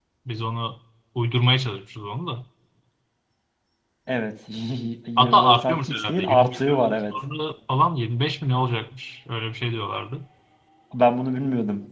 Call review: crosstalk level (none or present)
present